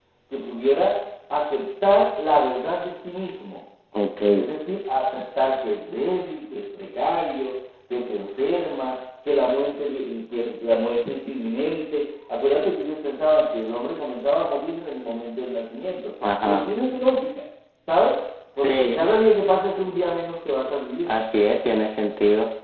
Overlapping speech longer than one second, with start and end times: none

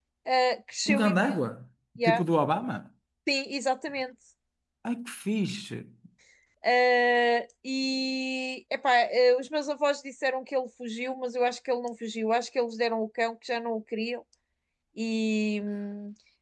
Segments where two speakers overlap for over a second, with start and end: none

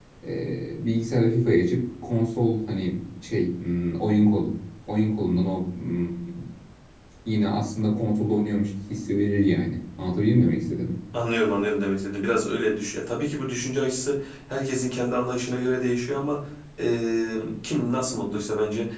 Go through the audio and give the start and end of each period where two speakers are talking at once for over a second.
none

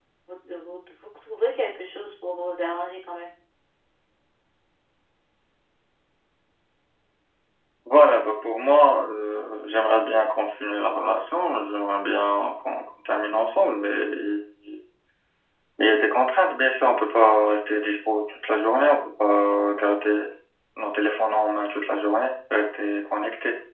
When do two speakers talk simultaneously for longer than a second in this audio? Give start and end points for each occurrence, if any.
none

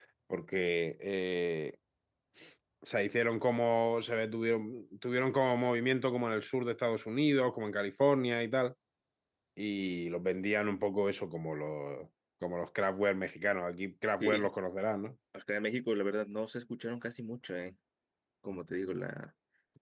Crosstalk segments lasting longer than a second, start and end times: none

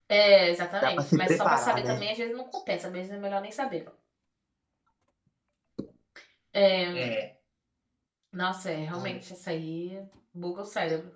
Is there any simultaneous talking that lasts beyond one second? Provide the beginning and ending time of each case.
0.8-2.0

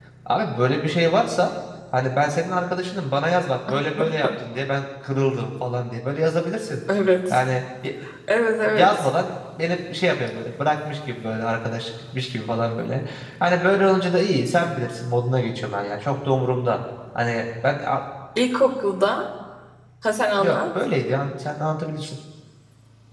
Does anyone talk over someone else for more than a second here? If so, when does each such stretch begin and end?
none

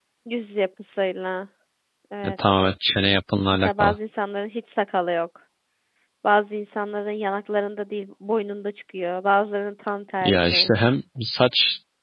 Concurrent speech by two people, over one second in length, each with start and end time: none

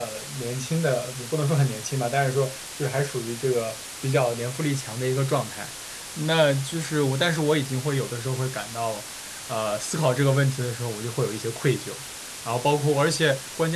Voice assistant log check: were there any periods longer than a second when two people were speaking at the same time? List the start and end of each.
none

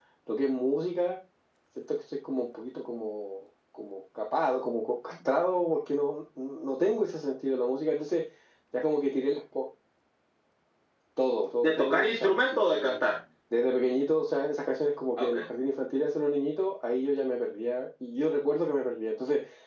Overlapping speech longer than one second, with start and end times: 11.6-13.1

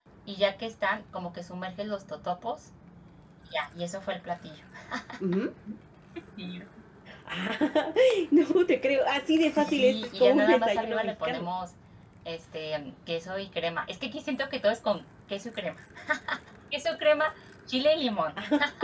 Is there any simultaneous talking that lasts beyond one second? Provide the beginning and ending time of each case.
9.6-11.5

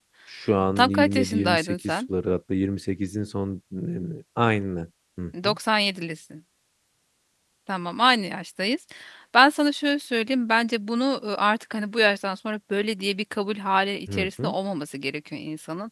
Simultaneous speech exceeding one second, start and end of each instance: 0.8-2.0

